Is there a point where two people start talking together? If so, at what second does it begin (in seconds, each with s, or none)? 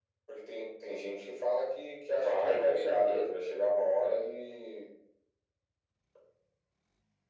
2.2 s